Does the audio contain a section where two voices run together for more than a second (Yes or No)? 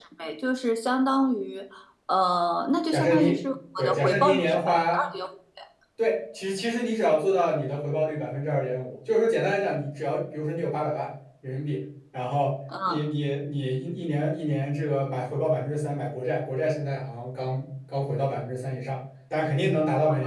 Yes